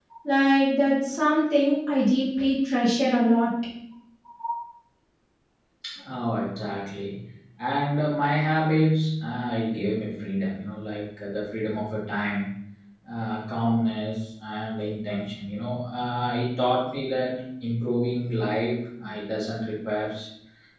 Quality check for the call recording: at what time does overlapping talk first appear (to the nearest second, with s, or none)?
none